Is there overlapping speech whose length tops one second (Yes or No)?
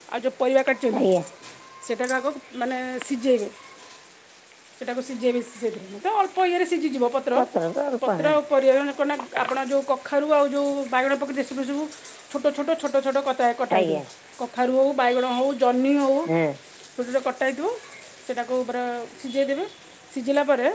No